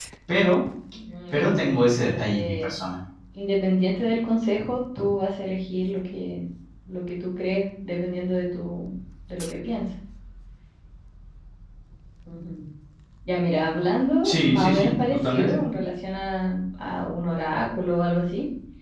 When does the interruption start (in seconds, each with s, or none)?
1.3 s